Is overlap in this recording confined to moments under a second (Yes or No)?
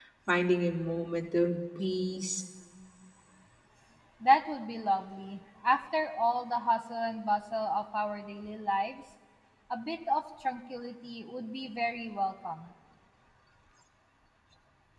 Yes